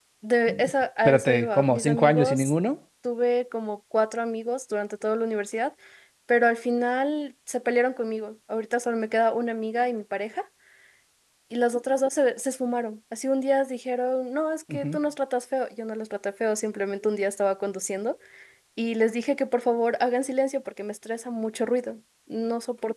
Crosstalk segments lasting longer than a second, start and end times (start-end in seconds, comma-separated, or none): 1.0-2.5